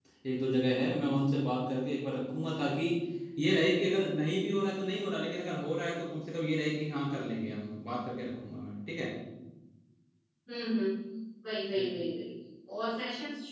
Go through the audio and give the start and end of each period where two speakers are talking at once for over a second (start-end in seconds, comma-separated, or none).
none